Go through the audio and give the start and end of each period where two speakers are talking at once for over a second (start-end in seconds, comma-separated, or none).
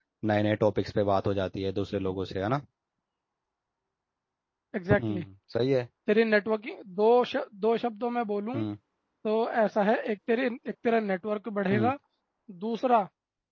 none